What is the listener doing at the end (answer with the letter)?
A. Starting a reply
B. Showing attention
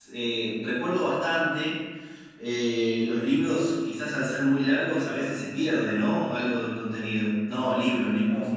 A